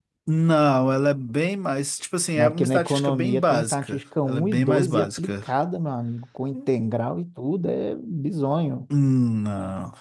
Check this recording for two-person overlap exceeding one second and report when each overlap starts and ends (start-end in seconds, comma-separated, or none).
2.4-5.4